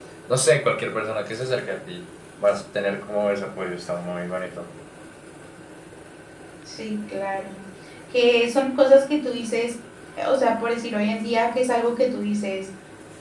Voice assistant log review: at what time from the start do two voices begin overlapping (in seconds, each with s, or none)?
none